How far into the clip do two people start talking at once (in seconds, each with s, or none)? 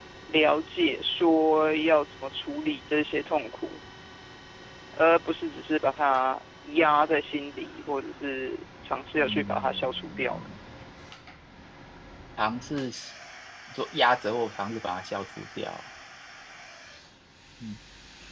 9.2 s